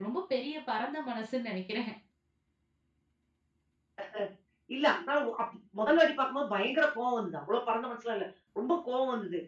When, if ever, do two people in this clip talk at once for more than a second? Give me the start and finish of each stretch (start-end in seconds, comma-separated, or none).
none